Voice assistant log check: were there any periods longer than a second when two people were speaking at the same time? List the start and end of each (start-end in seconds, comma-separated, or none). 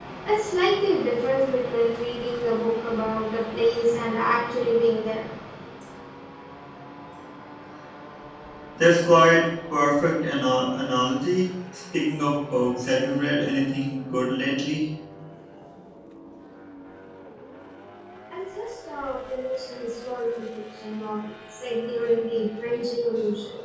none